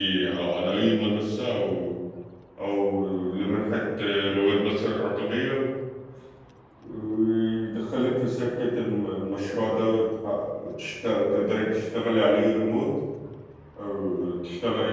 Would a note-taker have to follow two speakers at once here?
No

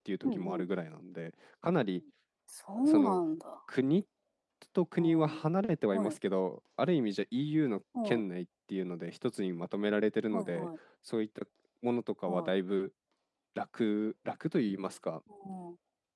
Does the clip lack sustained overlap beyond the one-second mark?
Yes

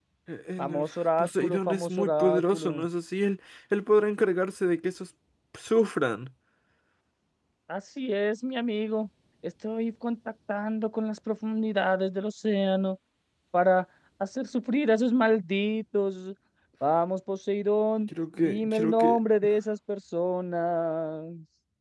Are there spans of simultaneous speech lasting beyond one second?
Yes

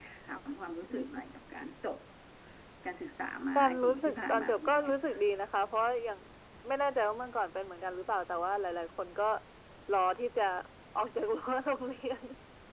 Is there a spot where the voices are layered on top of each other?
Yes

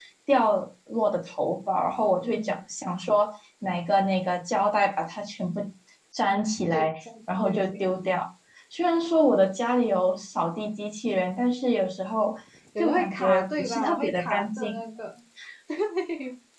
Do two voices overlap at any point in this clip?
Yes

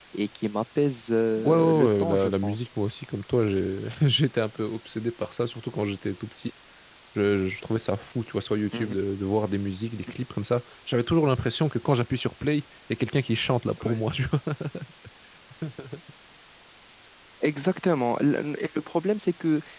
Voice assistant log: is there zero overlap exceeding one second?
No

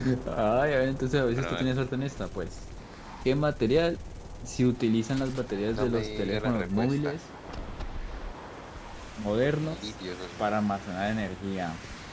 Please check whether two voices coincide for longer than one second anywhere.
Yes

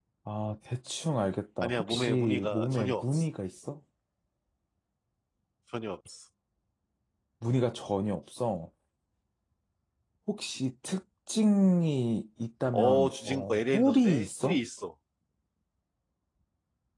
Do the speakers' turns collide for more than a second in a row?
Yes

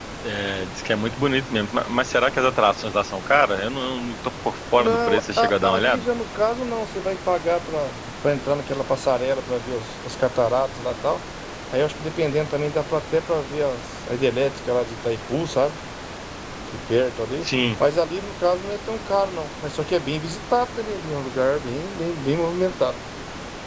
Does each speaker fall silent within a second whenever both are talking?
No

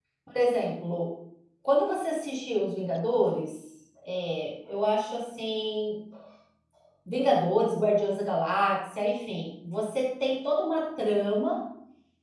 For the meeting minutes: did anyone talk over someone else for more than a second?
No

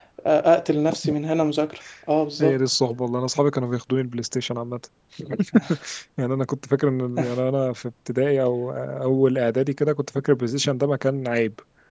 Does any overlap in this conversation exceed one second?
No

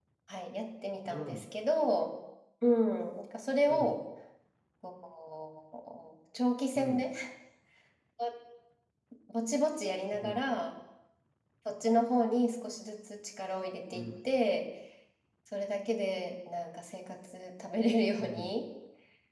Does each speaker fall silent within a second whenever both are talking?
Yes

